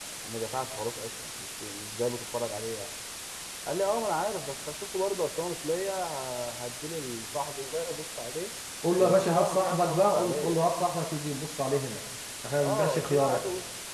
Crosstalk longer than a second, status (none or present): present